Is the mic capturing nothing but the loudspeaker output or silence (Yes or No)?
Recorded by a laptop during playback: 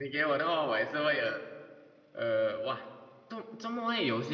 No